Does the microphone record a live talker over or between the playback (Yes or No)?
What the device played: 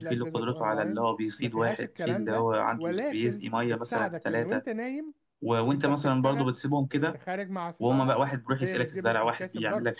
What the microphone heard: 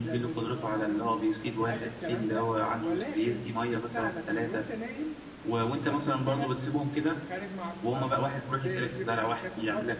No